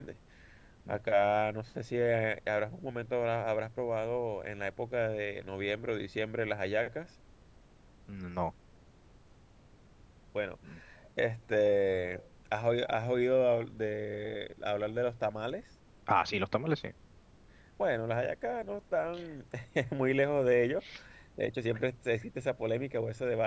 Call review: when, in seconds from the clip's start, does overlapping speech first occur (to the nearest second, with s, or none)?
none